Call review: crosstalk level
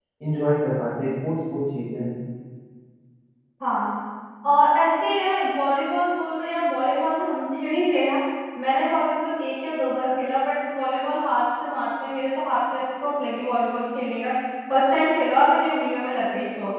none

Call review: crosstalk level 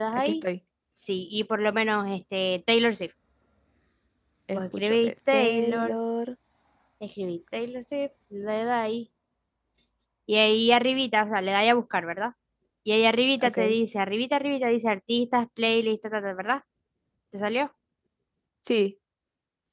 present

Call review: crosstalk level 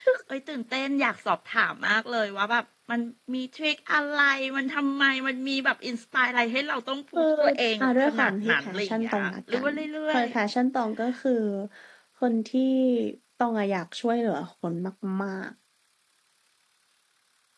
present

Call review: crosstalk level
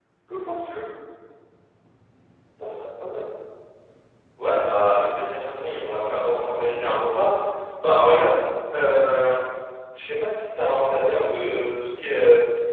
none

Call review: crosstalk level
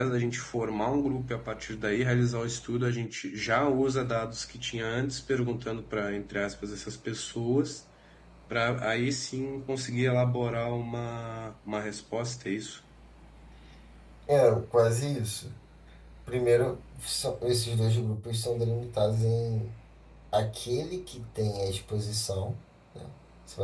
none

